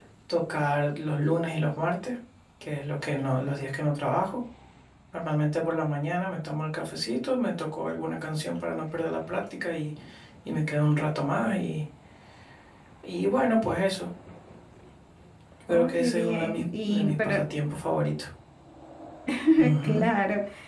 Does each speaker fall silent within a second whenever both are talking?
No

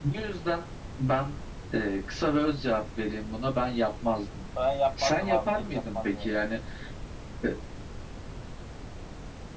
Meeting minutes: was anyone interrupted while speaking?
Yes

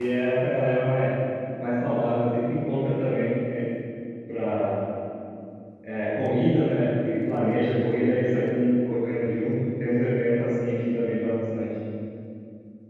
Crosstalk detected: No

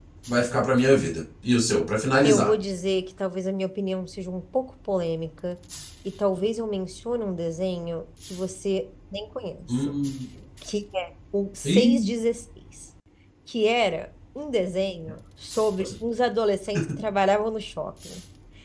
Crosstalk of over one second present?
No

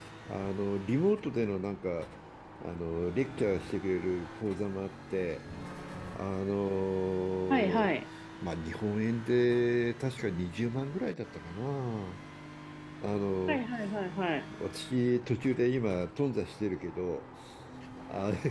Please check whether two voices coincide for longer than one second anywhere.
No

